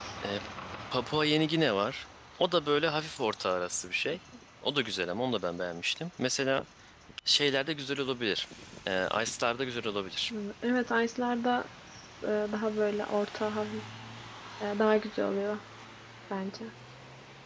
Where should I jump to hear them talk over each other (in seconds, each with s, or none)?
none